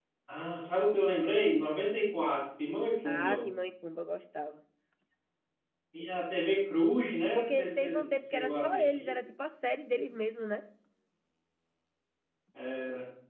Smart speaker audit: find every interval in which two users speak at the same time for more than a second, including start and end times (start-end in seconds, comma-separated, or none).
7.4-9.0